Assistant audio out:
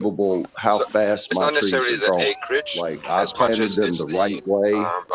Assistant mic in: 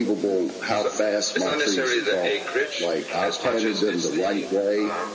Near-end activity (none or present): none